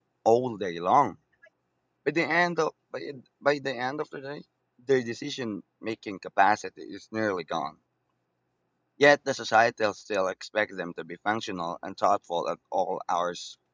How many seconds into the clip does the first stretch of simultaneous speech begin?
none

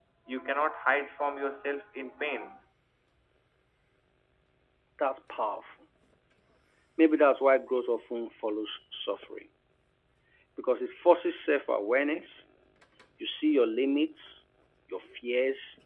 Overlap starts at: none

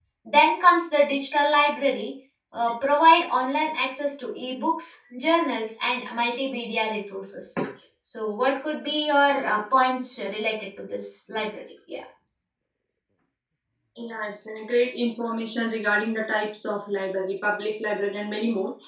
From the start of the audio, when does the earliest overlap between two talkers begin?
none

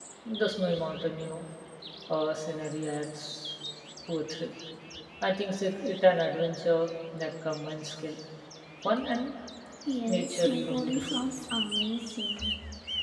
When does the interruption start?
10 s

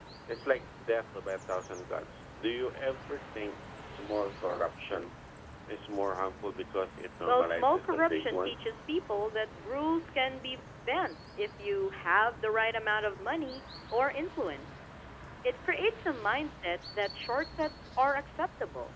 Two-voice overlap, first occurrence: 7 s

